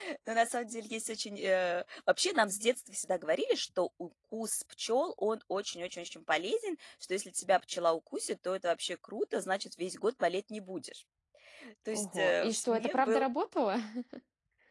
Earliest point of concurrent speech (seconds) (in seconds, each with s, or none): 11.9 s